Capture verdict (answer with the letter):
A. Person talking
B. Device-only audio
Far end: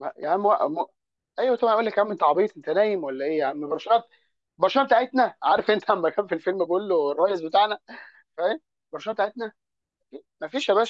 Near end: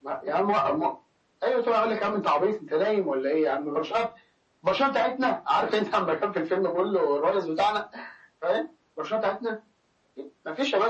B